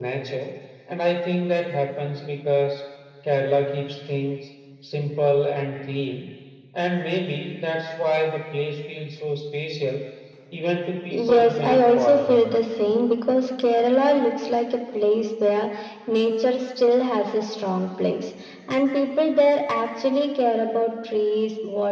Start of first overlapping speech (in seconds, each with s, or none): 11.1 s